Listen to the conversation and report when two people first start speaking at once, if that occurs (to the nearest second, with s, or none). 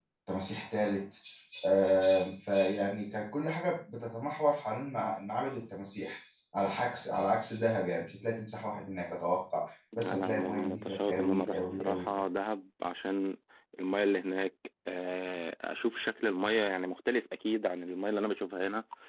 10 s